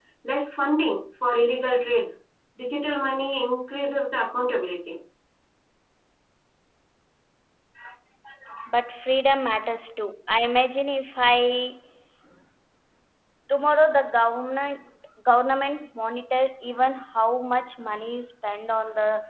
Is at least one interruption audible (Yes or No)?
No